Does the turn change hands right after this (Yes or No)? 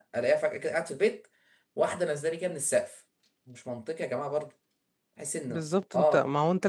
Yes